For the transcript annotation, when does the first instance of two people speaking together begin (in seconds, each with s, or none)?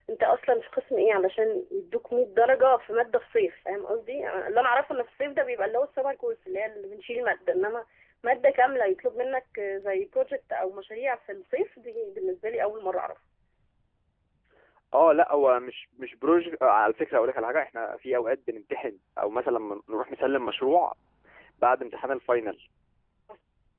none